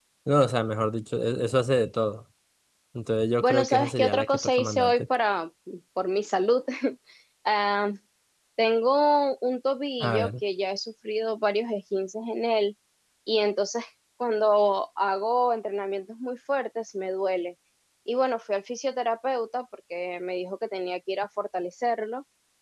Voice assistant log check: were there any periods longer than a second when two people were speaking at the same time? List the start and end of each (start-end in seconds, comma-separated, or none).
3.4-4.9